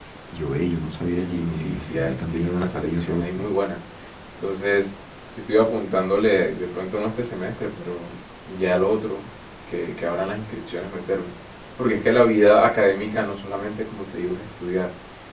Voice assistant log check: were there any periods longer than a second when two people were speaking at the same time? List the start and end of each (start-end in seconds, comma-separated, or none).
1.1-3.5